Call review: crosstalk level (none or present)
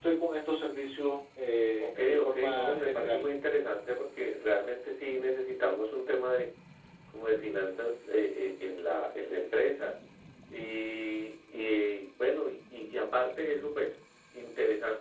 present